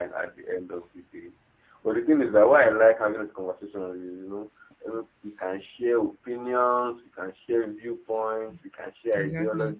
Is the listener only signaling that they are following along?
Yes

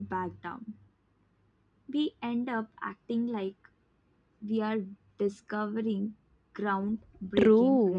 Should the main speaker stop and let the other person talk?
Yes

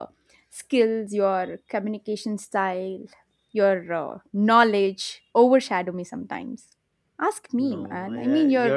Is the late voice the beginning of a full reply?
Yes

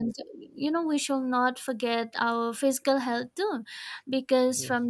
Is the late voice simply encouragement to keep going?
Yes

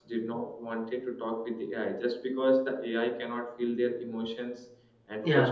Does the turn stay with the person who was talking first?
Yes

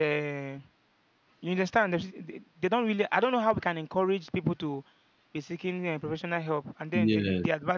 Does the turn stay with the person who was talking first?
Yes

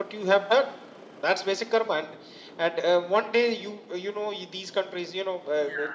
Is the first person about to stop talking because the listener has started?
No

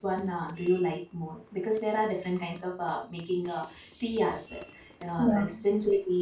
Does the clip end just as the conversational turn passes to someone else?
No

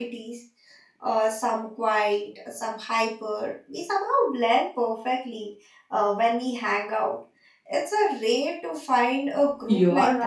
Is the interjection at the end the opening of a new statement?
Yes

